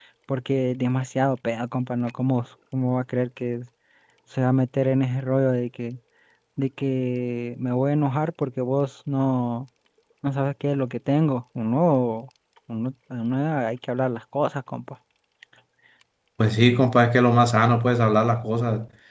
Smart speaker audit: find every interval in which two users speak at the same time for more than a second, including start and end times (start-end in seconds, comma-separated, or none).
none